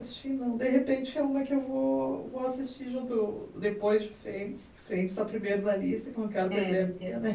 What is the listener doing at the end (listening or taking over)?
taking over